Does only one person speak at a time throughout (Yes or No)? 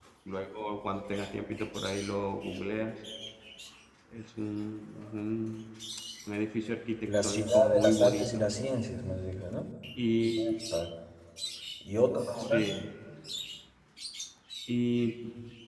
No